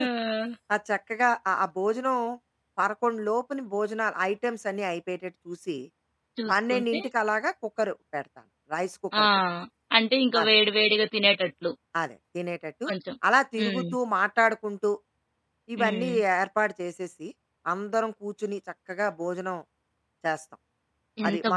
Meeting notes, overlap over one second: none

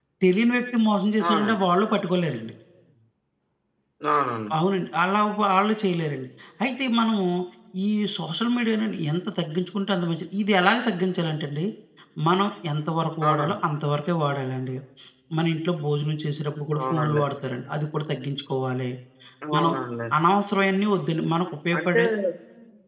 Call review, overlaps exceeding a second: none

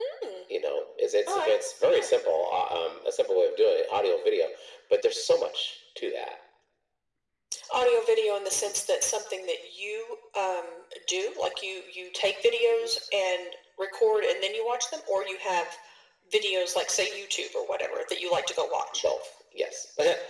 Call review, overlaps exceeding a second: none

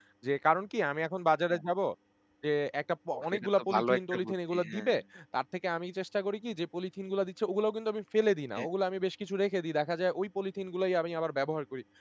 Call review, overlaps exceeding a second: present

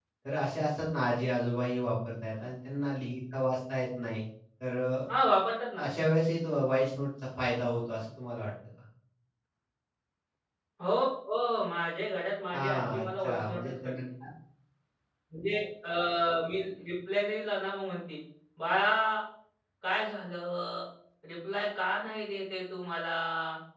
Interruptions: present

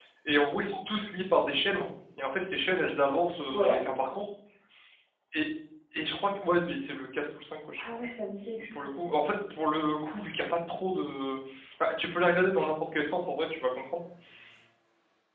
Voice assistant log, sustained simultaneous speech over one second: none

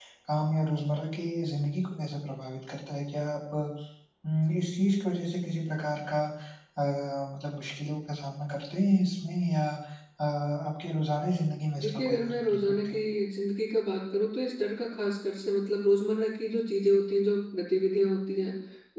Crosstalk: present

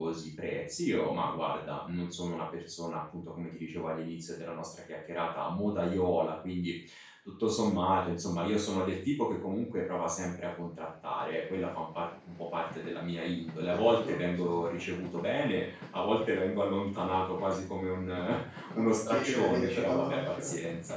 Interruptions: present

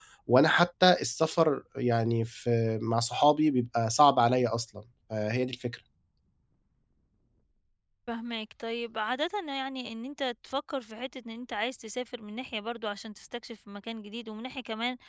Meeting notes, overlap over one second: none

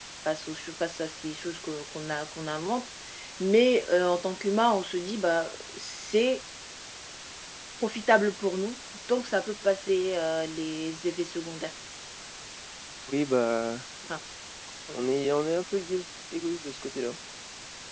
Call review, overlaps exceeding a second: none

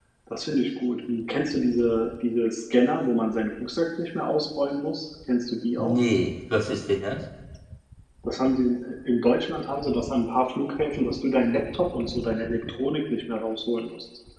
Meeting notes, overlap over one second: none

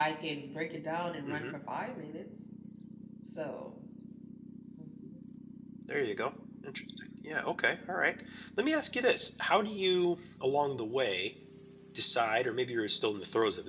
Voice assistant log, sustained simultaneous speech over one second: none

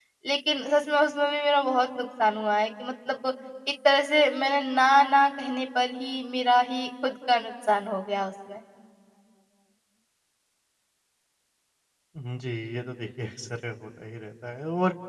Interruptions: none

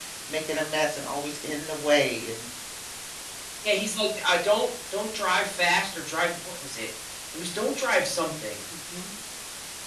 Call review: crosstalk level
none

